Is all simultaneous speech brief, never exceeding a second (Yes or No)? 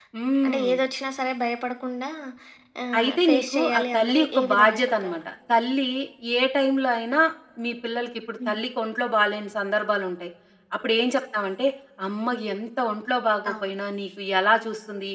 No